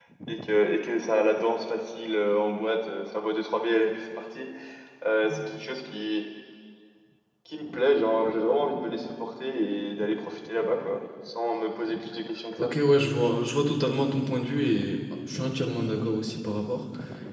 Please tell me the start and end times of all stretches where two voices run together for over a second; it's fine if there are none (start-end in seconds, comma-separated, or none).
none